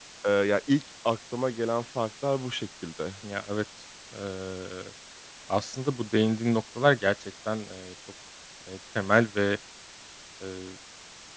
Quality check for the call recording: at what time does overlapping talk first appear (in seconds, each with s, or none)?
none